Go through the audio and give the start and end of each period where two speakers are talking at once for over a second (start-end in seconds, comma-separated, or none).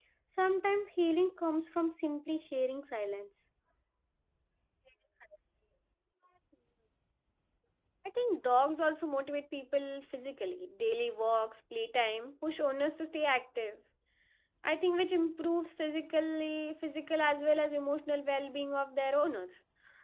none